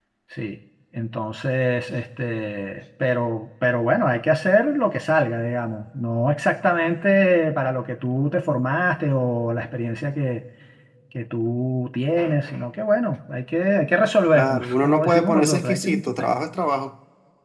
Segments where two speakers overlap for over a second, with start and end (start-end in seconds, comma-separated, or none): 14.3-16.3